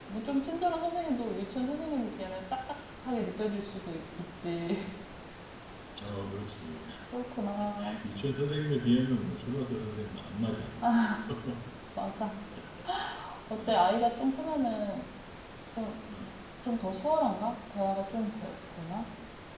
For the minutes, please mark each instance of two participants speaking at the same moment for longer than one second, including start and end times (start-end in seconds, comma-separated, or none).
none